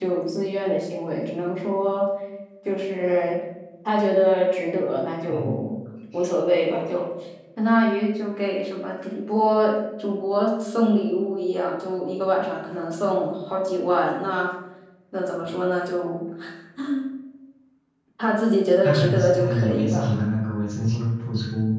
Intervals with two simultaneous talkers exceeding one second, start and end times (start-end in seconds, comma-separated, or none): 18.8-20.2